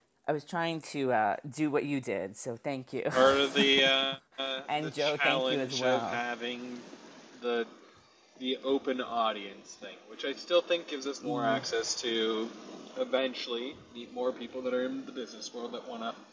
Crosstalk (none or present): present